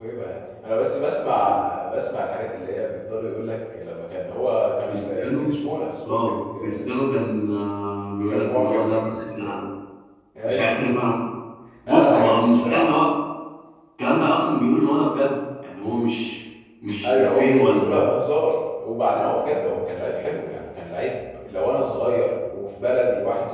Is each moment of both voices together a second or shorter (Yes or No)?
No